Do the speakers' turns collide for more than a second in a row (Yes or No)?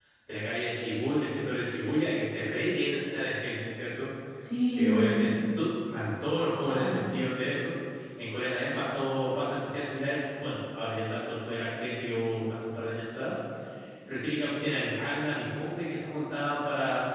No